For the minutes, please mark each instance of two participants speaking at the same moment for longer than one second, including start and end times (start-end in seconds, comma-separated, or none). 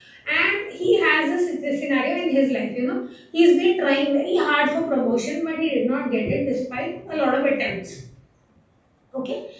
none